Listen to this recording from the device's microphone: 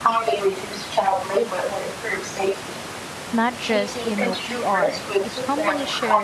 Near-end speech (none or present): present